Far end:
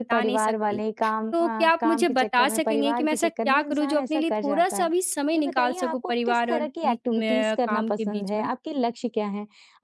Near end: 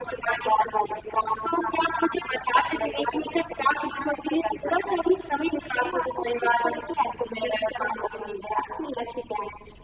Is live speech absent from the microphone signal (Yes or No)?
Yes